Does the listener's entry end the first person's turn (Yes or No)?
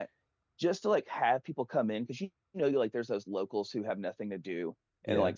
No